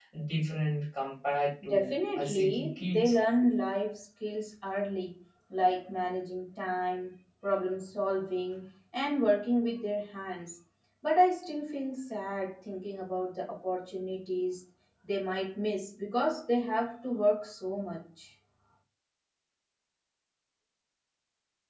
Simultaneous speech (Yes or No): Yes